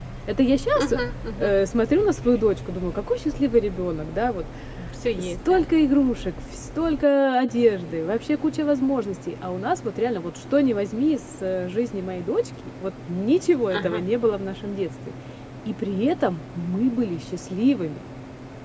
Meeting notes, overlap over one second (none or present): none